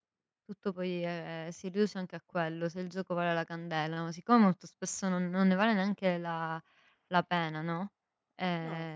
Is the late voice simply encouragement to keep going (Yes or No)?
Yes